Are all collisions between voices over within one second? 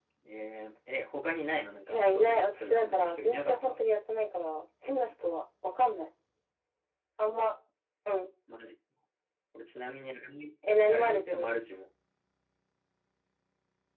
No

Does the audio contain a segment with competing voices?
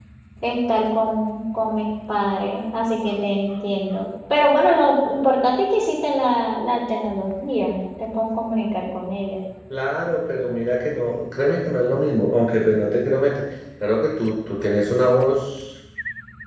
No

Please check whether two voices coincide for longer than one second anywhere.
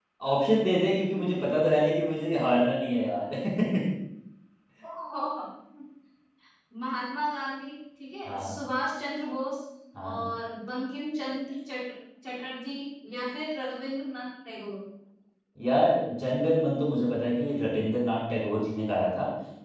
No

